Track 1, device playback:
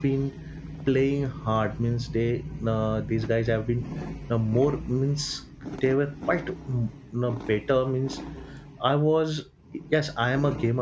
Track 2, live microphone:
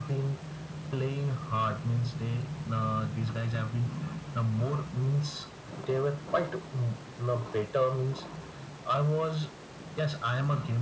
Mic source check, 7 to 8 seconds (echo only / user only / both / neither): echo only